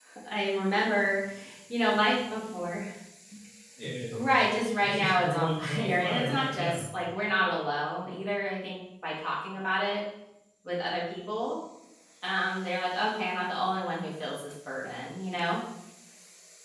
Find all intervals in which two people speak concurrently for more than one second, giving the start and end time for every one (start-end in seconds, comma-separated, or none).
4.8-6.8